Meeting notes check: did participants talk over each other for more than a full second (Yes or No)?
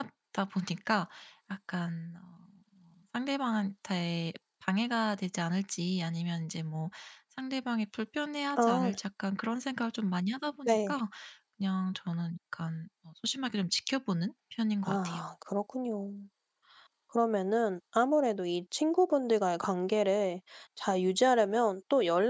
No